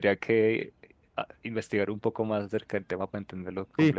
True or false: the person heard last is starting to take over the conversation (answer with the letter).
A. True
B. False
A